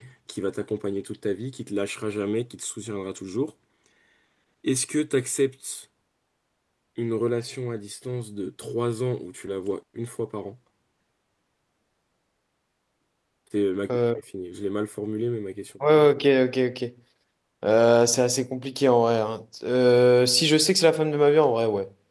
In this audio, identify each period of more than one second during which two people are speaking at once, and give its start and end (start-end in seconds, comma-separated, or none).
none